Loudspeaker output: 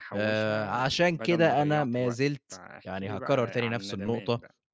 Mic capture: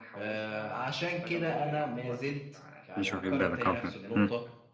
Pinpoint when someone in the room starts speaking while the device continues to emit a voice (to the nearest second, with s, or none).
3 s